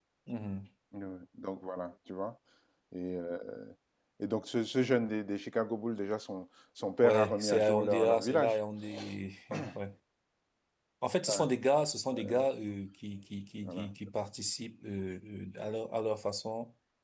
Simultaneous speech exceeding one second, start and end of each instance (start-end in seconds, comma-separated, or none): 7.0-8.6